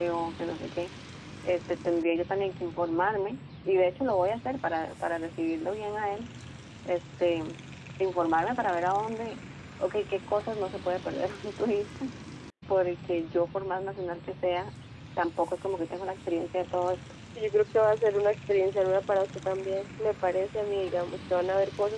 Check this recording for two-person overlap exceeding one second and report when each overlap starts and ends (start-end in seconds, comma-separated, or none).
none